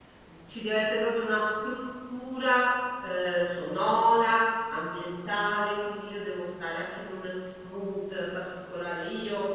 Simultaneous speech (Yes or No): No